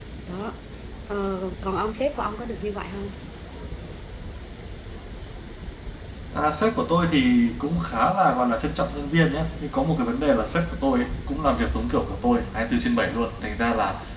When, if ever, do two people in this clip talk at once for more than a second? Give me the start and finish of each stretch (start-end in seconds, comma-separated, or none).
none